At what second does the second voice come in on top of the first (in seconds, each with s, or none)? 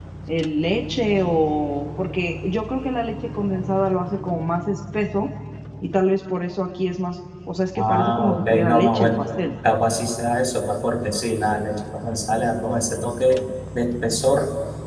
7.8 s